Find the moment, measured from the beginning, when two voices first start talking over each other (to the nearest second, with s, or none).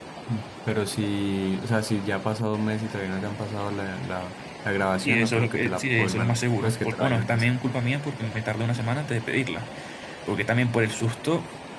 5 s